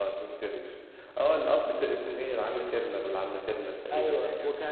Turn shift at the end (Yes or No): Yes